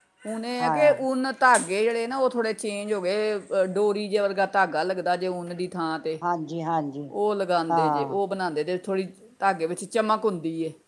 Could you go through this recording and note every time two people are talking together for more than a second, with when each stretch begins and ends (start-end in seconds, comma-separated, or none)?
none